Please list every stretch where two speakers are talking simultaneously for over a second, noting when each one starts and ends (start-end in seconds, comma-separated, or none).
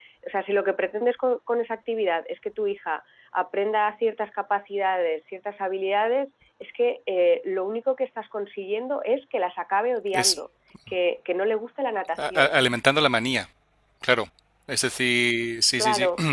none